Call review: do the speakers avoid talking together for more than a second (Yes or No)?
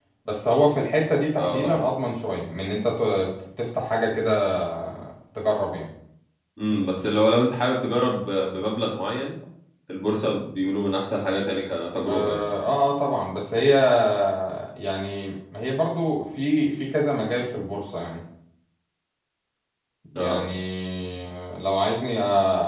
Yes